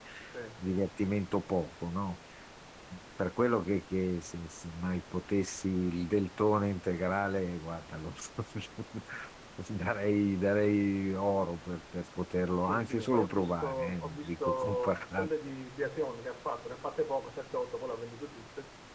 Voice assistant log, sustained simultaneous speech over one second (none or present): present